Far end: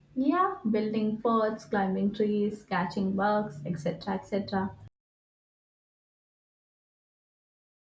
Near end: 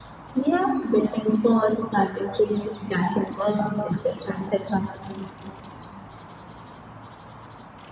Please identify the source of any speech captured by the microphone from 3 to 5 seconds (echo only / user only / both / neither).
echo only